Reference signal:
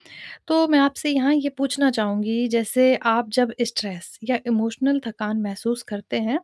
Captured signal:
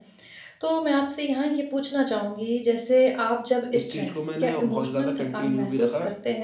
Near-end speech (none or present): present